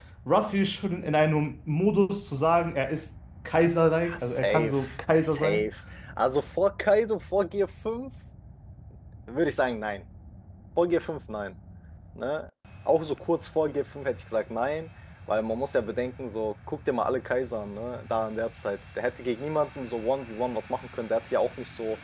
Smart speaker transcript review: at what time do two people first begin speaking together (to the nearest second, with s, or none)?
4 s